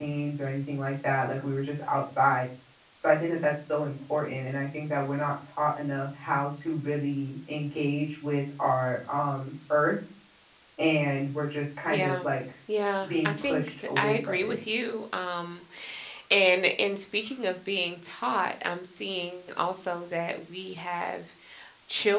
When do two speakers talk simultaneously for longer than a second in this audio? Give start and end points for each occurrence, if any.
13.1-14.6

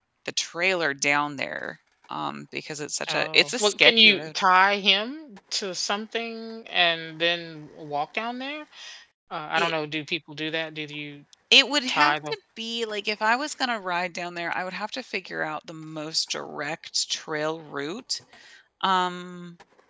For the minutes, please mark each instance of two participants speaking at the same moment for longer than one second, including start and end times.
3.1-4.3

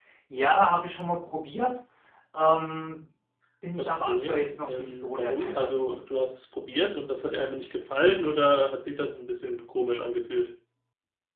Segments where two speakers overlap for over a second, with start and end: 3.8-6.0

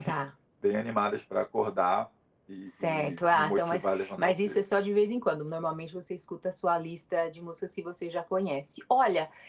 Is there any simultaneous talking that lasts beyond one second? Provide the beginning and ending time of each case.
2.7-4.6

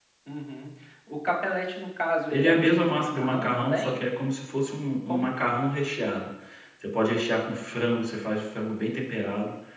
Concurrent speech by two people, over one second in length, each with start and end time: 2.3-4.0

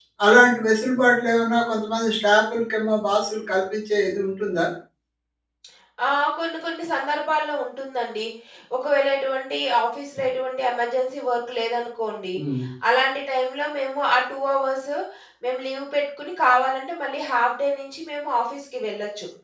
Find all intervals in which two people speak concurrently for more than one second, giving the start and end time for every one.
none

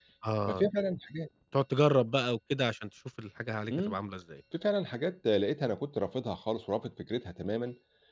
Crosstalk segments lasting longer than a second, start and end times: none

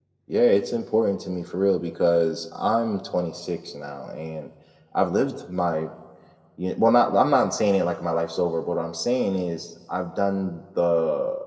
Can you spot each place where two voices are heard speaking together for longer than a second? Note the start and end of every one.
none

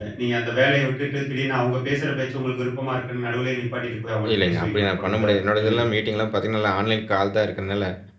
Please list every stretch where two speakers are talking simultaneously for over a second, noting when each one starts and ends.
4.3-5.8

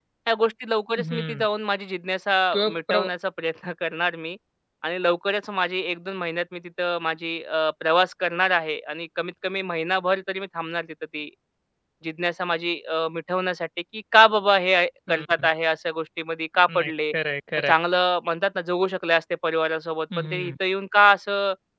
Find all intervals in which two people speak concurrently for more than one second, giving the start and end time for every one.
none

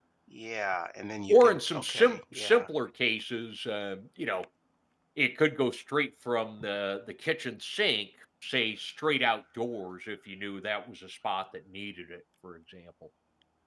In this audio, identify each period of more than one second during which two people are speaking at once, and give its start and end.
1.3-2.7

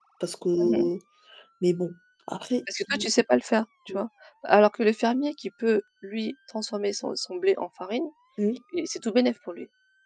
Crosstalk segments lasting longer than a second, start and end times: none

